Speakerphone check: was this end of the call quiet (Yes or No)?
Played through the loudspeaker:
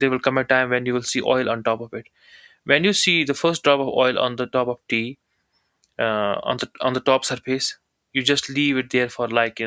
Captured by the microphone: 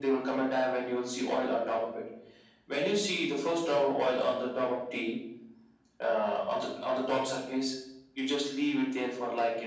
Yes